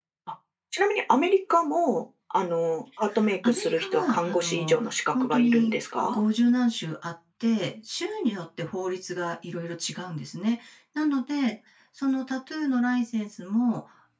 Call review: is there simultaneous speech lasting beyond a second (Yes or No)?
Yes